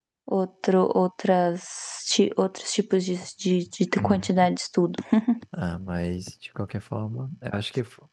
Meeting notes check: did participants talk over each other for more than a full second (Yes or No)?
No